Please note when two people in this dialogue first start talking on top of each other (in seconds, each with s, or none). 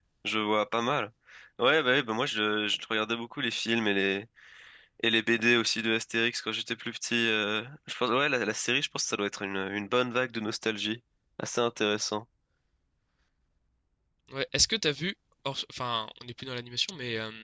none